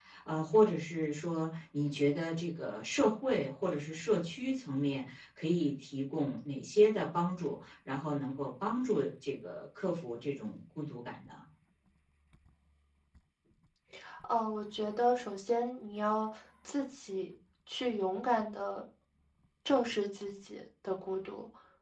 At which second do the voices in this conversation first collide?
none

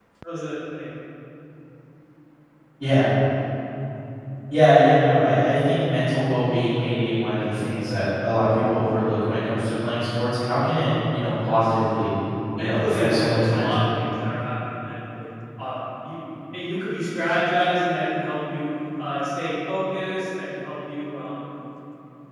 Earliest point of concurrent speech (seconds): 12.6 s

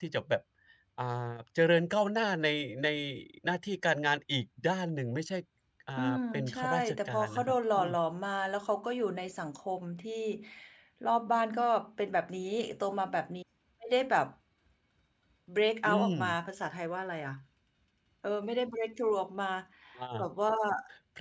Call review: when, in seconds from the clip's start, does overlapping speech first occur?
6.0 s

